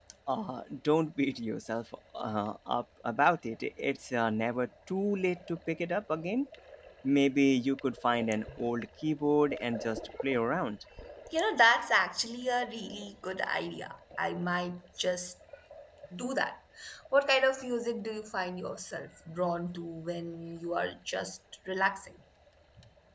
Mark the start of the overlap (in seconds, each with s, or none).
none